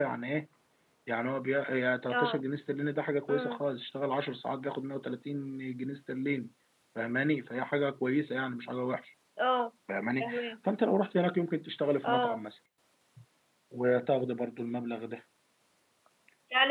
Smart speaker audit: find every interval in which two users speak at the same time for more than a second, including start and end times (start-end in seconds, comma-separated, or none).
none